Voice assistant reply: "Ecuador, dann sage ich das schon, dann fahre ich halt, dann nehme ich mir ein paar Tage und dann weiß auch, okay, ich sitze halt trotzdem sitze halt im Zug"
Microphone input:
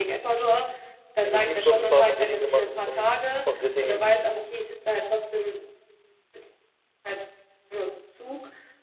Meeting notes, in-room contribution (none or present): present